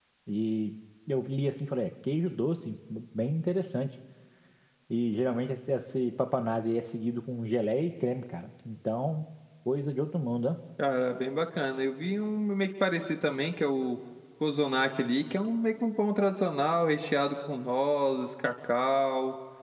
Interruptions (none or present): none